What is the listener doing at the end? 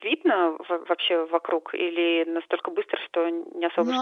taking over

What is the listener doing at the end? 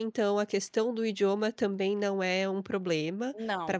listening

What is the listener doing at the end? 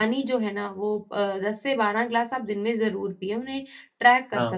listening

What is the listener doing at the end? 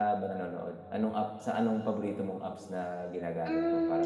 taking over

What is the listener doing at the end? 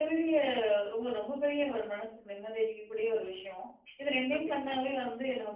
listening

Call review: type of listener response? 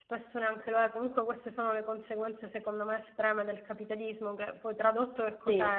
listening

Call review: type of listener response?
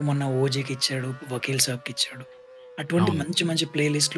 listening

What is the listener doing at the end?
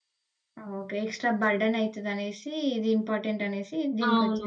taking over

